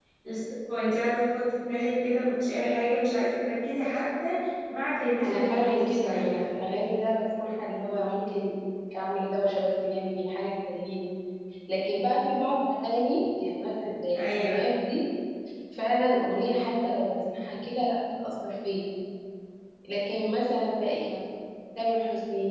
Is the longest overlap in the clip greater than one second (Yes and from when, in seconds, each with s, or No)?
Yes, from 5.2 s